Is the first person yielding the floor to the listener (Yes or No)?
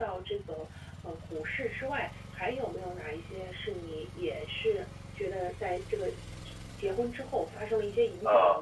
Yes